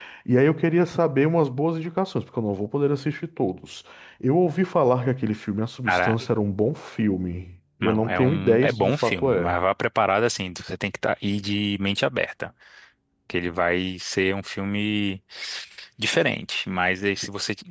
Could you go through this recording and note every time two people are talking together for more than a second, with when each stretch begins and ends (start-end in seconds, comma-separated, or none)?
7.8-9.6